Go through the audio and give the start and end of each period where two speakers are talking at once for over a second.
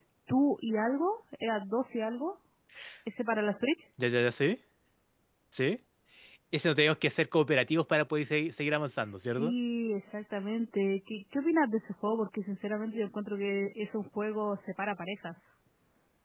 none

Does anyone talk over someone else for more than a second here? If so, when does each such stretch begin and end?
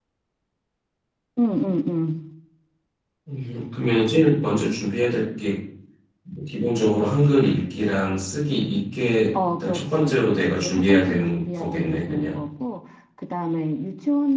9.3-12.4

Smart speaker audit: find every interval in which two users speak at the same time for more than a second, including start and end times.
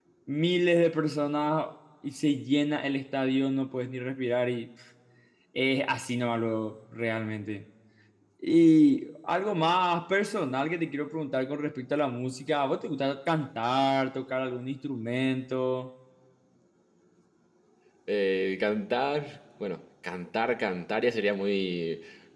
none

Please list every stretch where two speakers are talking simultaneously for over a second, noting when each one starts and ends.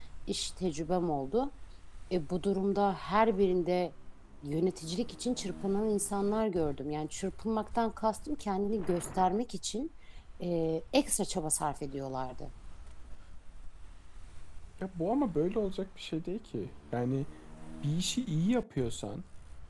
none

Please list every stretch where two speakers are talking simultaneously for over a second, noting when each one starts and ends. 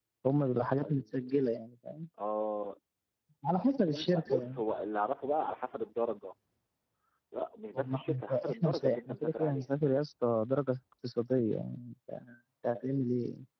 7.8-9.7

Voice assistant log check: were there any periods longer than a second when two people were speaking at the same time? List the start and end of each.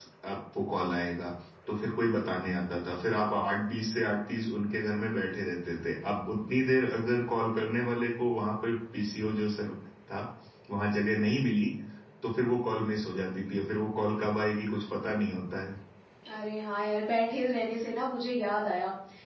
none

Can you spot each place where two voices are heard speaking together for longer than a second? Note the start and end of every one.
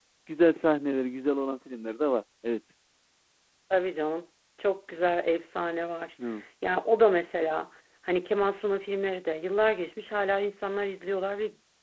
none

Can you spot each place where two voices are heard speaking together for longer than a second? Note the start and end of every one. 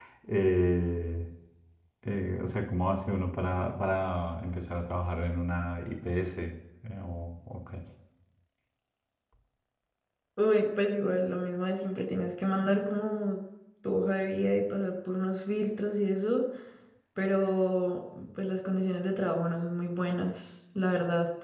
none

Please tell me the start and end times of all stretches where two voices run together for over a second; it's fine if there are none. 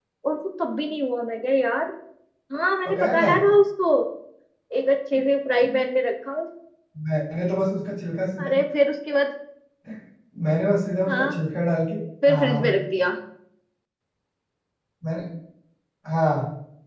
none

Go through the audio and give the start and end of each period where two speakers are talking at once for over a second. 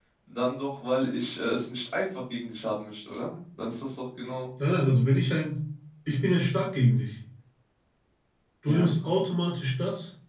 none

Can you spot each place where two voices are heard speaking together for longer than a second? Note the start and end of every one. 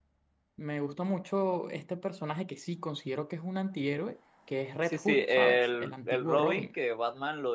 4.8-6.7

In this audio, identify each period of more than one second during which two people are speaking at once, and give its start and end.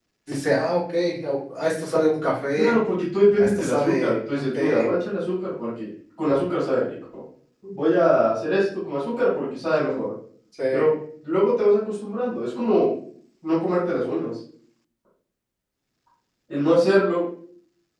3.4-4.9

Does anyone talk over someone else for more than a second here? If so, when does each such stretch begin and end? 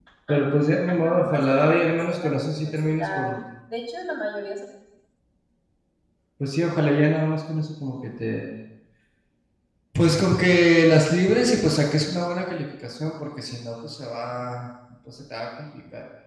0.9-3.3

